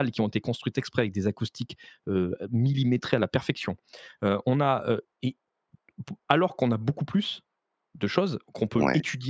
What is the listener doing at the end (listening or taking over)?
listening